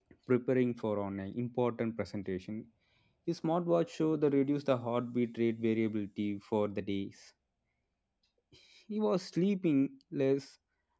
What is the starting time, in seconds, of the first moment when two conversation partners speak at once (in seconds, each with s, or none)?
none